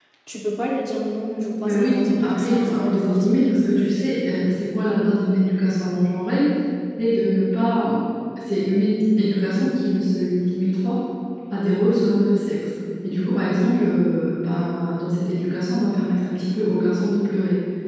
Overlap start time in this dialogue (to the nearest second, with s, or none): 2 s